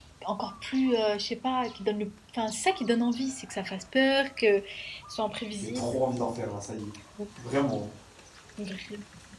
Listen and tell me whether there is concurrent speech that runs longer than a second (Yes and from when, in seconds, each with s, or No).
No